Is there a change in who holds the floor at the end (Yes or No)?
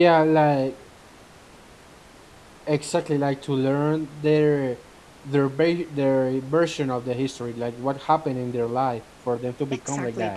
Yes